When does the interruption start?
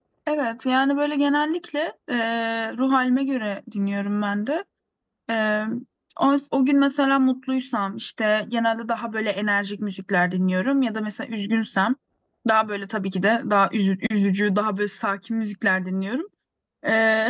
none

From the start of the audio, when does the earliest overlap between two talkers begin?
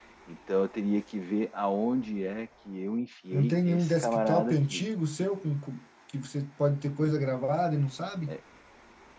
3.3 s

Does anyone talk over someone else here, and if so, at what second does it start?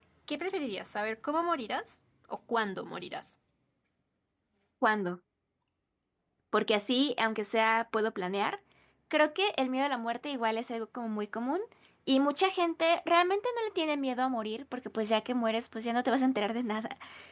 none

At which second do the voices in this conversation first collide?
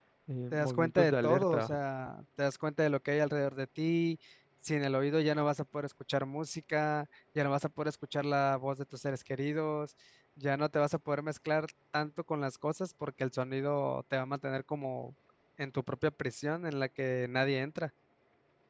0.5 s

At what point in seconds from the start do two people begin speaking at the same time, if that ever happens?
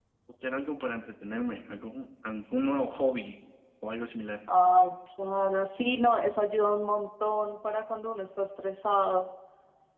none

